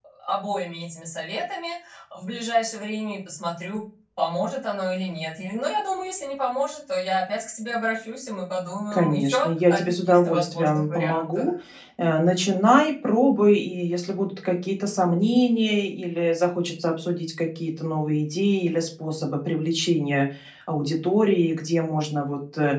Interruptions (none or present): present